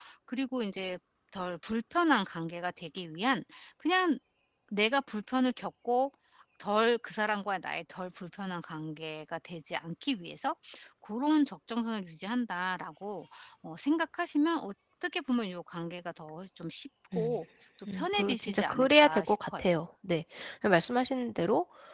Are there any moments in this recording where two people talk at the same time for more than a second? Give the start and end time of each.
17.9-19.6

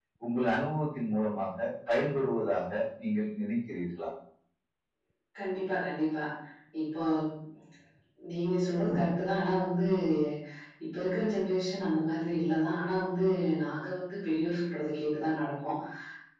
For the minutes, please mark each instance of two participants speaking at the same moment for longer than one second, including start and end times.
none

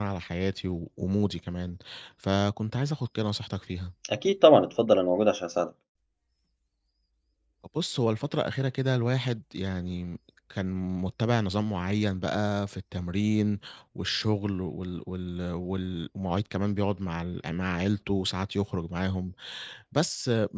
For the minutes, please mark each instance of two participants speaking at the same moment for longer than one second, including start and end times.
none

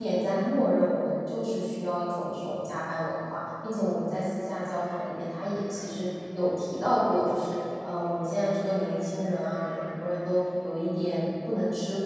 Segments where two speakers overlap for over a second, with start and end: none

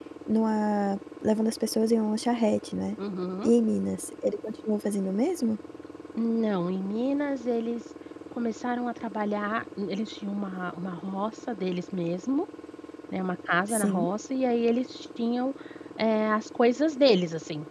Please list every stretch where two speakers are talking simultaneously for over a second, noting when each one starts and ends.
none

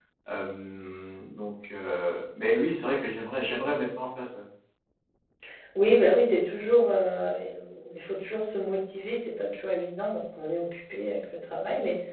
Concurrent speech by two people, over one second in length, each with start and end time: none

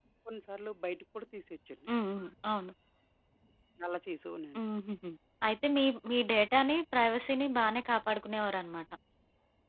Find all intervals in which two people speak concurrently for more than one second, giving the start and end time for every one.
none

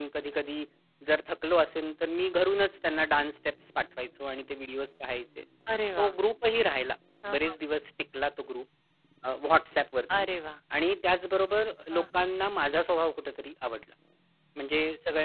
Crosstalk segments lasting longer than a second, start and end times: none

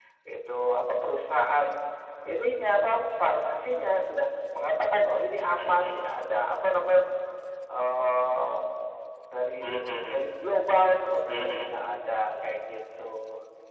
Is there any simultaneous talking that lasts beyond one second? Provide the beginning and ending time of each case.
none

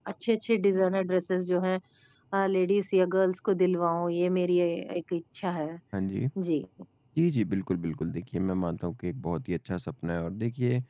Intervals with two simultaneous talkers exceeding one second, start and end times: none

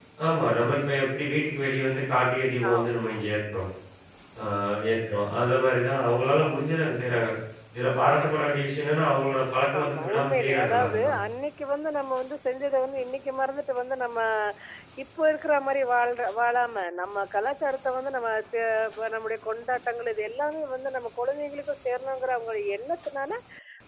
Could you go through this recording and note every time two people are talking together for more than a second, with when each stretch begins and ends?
9.8-11.1

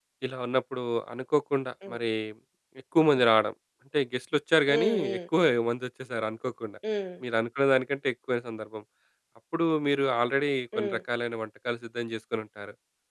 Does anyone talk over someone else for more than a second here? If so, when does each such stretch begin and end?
none

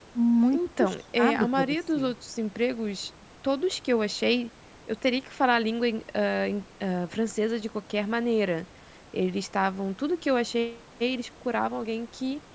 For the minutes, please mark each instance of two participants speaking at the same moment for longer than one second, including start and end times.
0.5-2.1

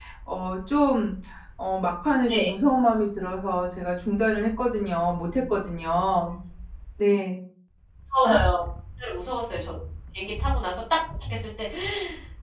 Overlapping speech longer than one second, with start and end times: none

